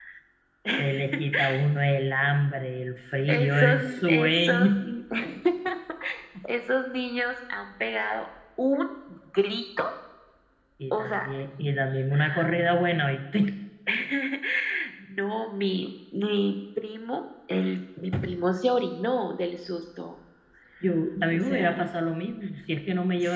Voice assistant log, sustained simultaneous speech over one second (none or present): present